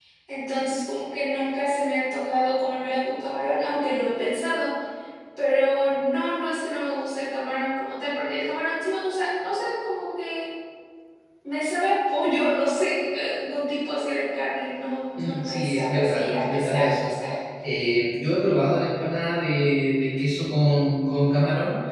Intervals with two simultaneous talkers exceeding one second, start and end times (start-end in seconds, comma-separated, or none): 15.2-17.1